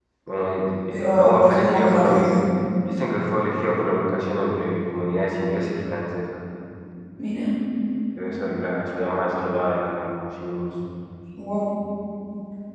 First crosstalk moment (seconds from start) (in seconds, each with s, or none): 0.9 s